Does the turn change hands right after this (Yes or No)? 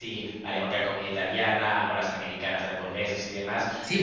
Yes